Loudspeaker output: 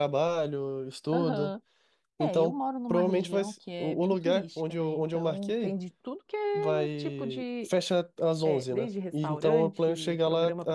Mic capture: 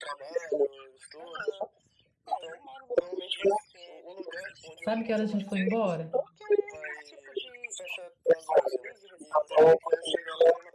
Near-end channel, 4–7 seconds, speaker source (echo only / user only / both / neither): both